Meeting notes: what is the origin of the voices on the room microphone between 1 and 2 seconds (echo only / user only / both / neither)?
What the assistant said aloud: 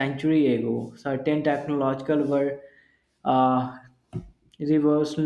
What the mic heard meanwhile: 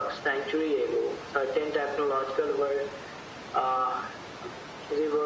echo only